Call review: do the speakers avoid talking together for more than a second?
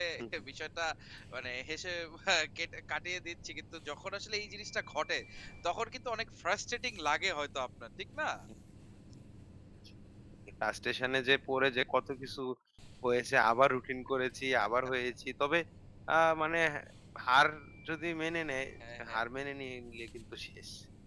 Yes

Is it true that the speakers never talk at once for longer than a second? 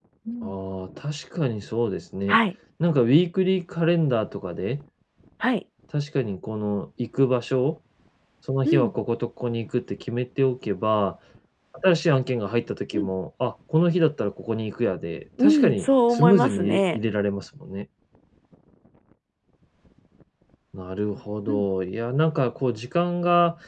No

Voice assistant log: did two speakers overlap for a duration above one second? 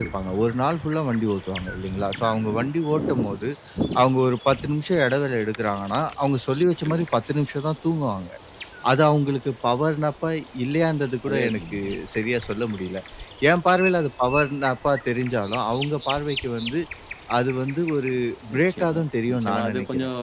Yes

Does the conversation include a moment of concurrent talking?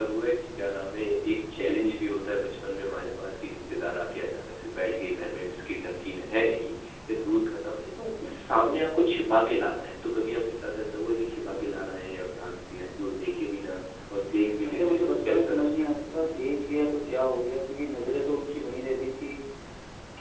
Yes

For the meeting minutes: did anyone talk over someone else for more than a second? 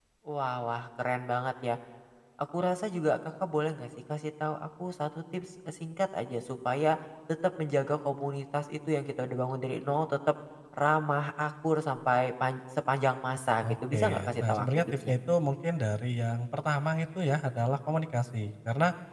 Yes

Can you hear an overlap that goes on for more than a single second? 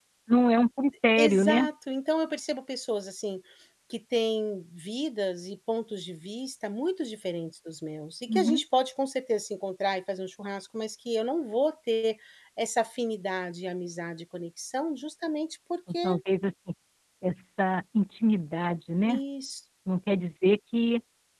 No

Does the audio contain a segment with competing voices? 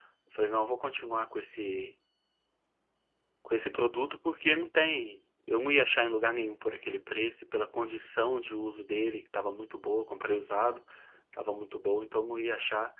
No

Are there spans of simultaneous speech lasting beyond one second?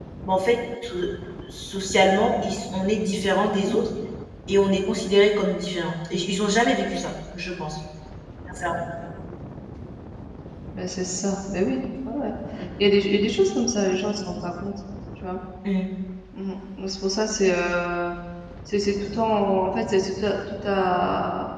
No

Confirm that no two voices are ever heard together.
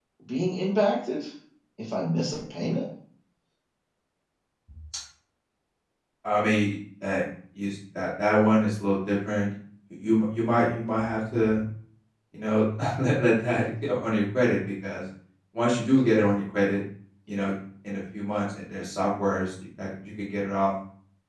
Yes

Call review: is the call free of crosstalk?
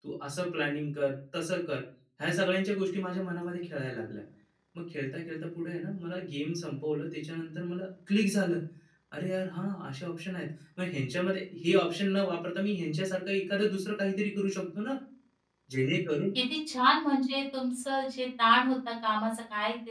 Yes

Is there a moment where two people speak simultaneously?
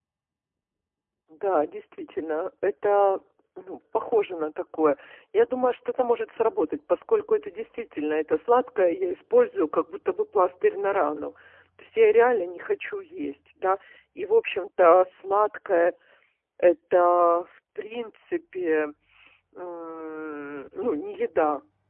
No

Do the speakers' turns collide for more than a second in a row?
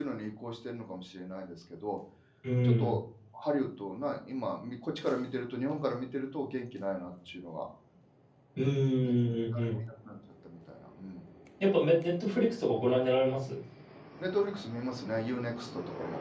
No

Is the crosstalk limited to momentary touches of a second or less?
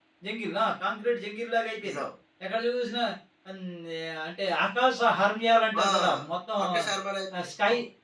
Yes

